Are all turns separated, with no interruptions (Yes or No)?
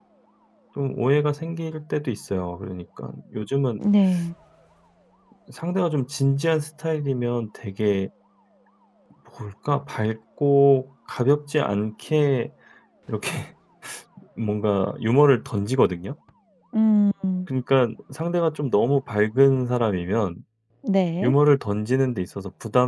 Yes